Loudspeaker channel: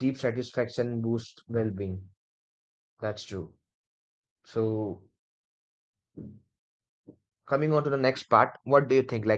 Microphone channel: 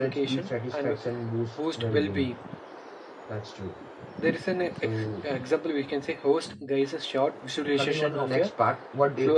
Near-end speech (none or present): present